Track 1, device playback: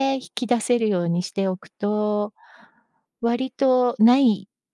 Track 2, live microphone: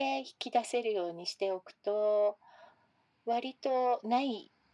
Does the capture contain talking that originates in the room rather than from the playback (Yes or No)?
No